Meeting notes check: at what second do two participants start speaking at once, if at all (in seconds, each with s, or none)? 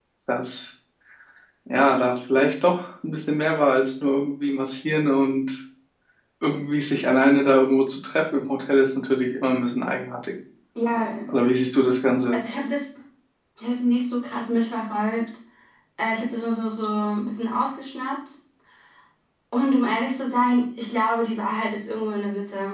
none